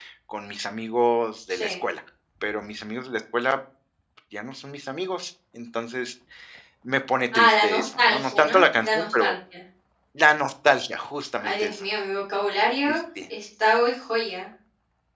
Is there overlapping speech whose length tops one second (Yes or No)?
Yes